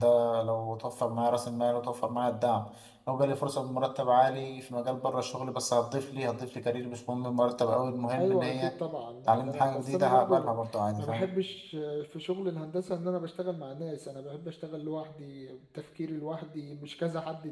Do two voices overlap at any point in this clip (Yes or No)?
Yes